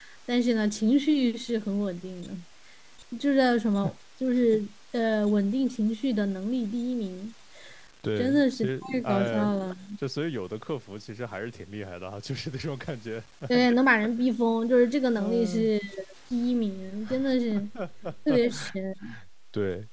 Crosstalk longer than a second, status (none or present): present